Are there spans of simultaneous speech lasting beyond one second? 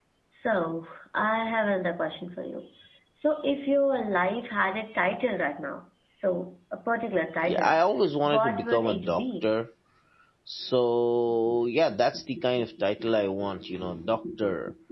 Yes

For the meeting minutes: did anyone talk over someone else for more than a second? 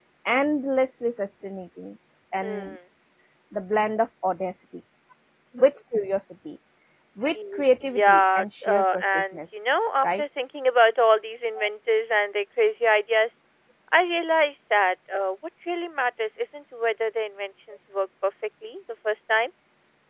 Yes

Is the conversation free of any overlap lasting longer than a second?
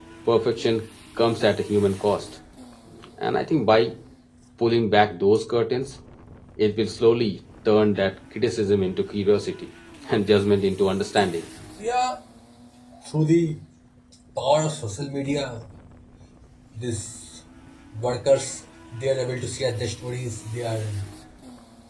Yes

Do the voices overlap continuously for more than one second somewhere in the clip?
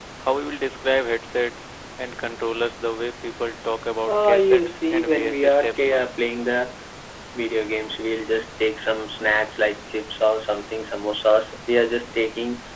Yes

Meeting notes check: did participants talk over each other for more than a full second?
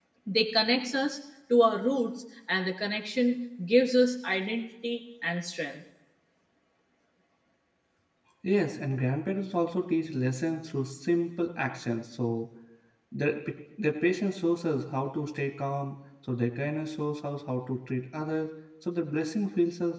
No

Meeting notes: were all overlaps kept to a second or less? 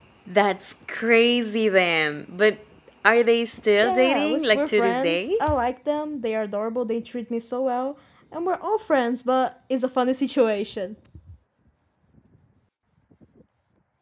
No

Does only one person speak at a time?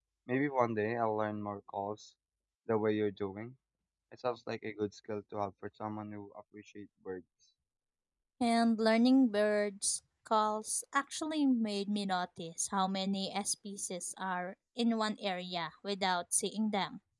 Yes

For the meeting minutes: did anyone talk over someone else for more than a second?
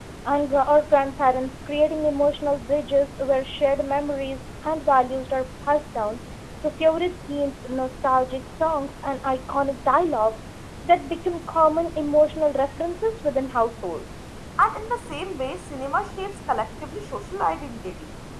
No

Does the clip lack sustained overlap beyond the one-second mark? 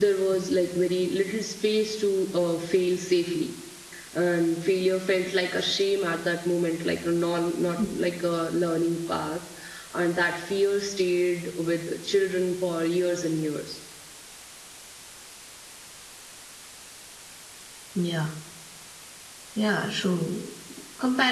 Yes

